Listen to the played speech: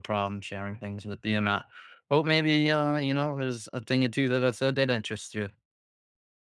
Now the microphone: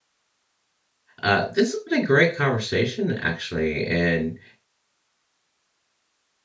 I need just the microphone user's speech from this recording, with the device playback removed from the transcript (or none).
Uh, this has been a great conversation, actually, and